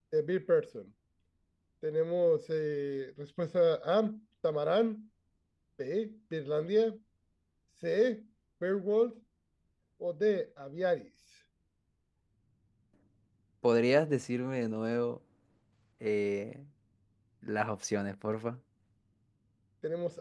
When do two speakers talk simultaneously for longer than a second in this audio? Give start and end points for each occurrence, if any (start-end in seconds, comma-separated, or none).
none